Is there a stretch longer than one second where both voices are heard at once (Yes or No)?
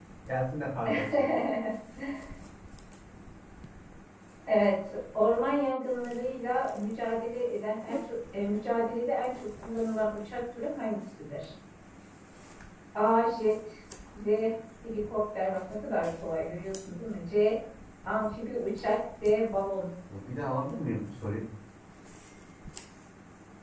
No